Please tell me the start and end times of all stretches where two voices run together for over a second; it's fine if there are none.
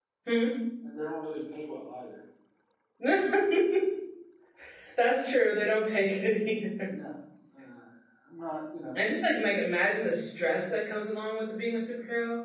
none

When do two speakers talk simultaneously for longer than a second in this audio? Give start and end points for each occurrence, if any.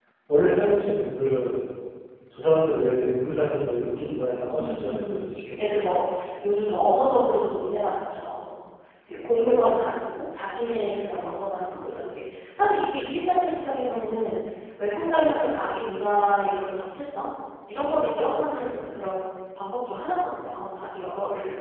4.5-5.8

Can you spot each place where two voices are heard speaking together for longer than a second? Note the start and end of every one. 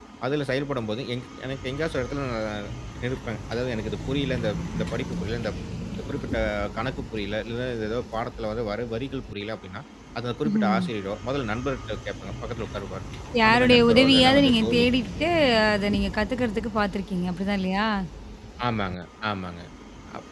13.4-14.8

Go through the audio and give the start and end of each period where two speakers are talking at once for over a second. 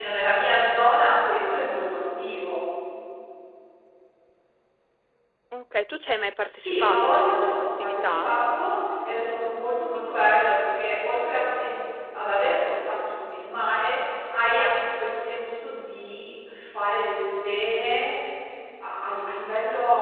6.5-8.3

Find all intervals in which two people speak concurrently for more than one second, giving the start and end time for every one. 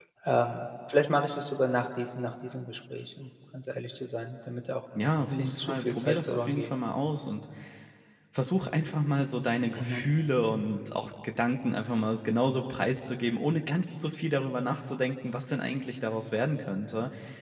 5.3-6.7

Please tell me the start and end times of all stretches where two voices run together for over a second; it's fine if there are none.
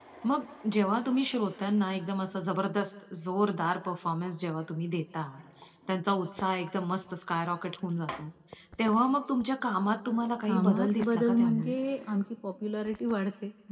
10.4-11.7

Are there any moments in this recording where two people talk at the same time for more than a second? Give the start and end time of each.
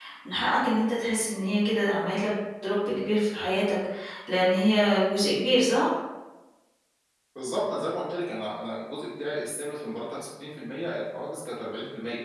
none

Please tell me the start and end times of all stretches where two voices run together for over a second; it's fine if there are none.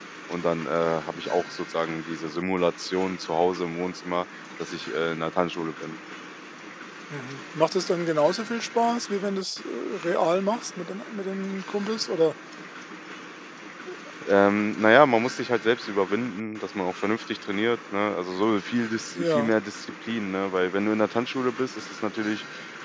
none

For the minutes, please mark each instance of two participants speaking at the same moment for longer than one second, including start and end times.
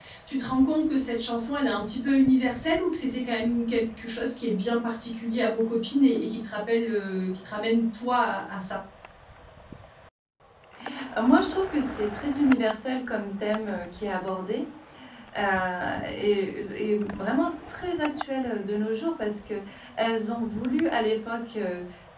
none

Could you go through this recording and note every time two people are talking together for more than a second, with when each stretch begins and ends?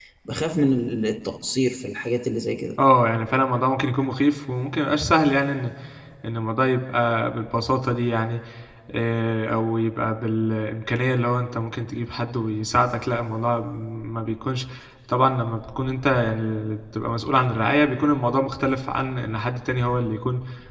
none

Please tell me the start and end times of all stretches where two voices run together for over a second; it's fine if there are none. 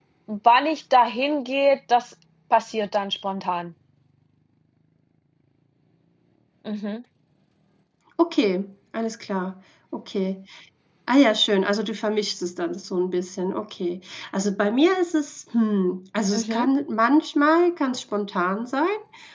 none

